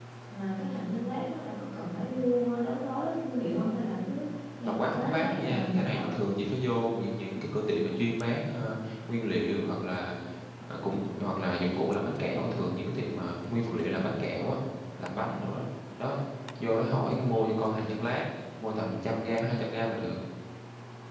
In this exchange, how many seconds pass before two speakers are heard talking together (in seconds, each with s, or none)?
4.7 s